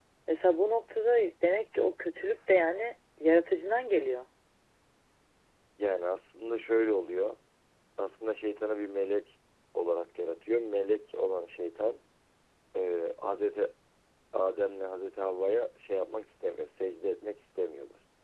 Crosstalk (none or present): none